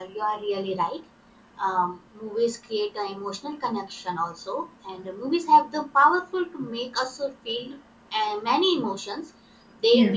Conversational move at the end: listening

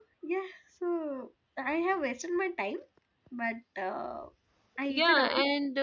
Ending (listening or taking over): taking over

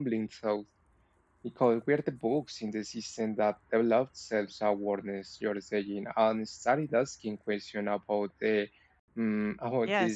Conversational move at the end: taking over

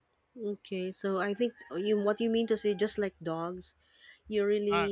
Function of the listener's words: listening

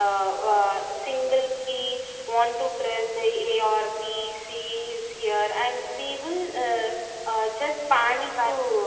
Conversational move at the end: taking over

